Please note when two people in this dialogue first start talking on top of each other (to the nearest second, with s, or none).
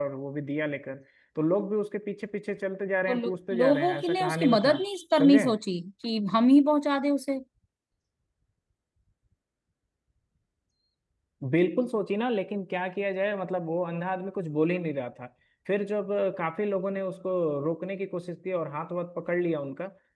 3 s